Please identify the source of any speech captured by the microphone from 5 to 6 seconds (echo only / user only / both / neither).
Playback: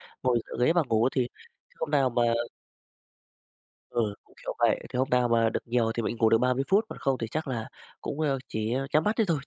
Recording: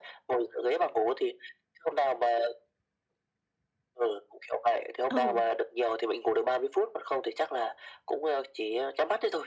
both